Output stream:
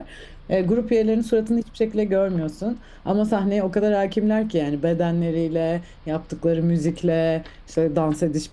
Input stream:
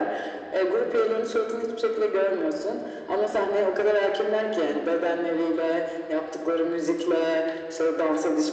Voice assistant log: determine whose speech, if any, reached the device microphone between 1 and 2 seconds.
echo only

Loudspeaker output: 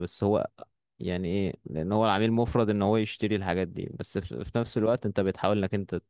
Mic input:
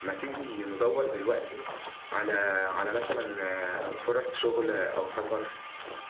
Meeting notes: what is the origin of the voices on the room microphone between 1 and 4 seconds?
user only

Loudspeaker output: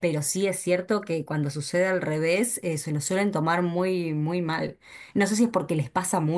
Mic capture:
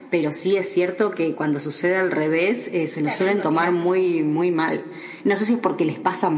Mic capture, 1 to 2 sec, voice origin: echo only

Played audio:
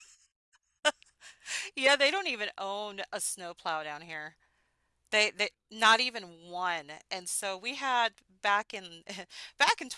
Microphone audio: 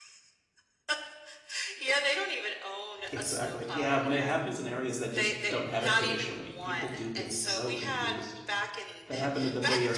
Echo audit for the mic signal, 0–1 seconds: neither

